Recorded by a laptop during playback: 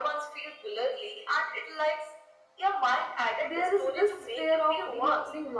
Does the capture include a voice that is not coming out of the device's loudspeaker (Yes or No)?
Yes